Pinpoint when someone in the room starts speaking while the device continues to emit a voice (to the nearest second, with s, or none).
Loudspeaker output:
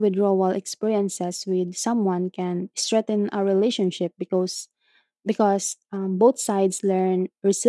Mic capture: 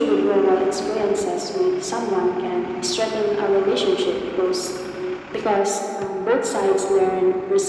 none